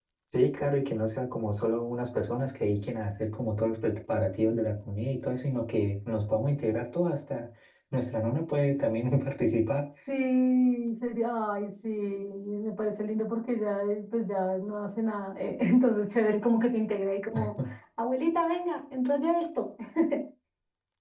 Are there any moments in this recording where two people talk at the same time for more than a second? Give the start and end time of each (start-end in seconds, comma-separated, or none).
none